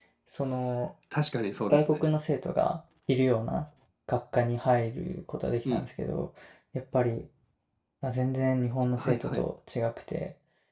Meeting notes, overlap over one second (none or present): none